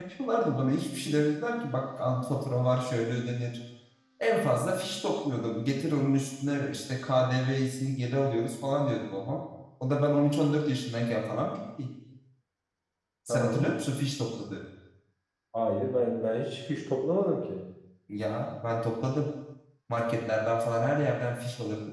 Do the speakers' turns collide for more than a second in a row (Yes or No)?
No